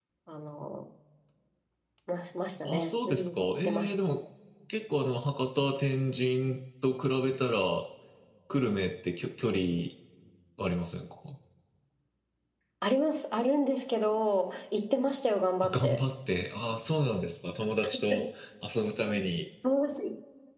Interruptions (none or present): present